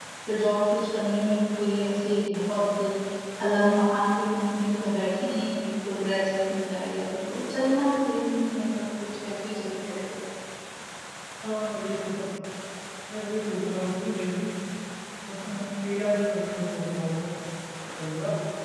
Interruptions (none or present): none